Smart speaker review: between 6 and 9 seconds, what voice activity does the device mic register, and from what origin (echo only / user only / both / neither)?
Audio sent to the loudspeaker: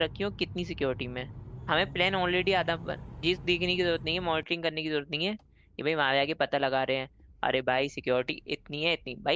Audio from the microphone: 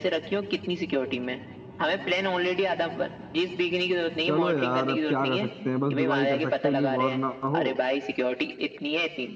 both